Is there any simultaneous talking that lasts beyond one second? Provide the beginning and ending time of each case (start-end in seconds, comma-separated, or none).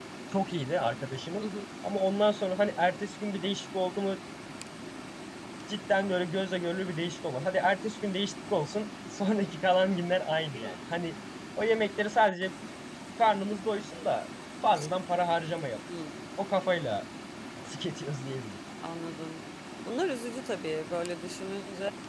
none